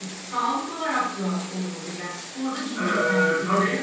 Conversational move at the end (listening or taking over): listening